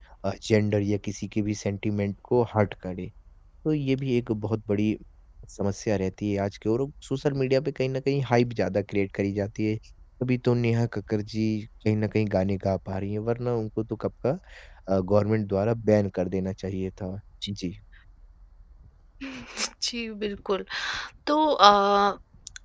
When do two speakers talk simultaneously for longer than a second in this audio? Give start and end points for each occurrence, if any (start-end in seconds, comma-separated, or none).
none